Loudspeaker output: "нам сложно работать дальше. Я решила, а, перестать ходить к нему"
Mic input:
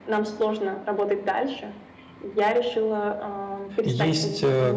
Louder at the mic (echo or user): user